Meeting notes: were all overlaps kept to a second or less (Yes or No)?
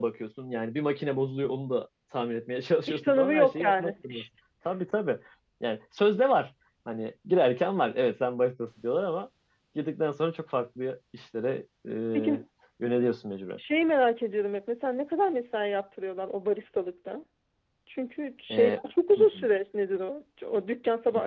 No